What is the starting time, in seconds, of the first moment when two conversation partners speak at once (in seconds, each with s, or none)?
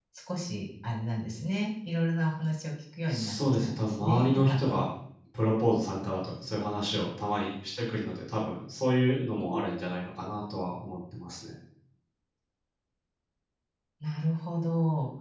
3.1 s